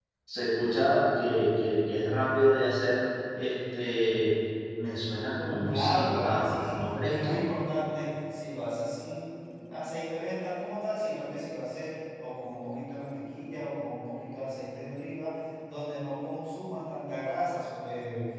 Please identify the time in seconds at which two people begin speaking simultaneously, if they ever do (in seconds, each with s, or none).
5.7 s